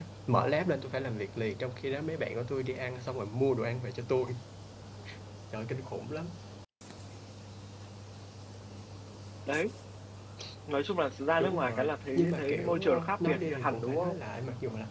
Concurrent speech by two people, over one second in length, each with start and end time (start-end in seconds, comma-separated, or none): 11.4-14.1